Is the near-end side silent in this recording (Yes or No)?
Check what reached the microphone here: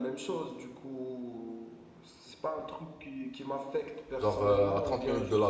No